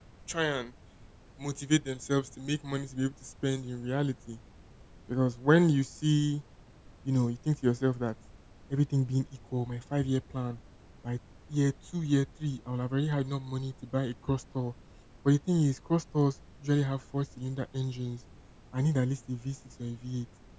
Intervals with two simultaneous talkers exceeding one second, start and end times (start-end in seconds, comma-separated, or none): none